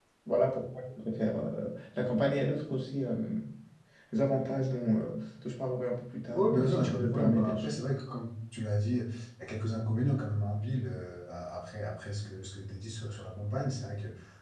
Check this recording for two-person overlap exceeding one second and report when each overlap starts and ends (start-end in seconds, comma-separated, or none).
6.3-7.8